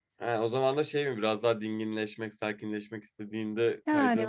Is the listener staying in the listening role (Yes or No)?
No